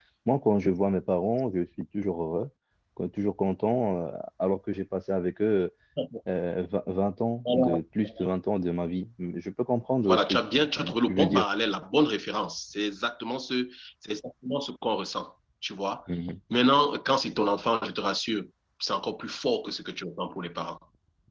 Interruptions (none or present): present